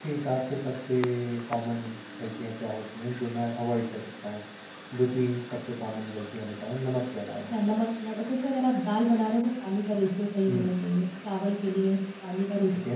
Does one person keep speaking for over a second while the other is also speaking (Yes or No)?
No